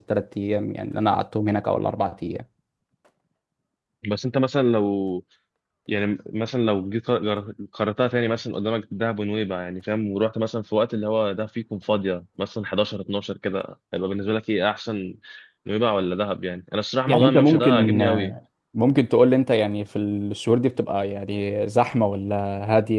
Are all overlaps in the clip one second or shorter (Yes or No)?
No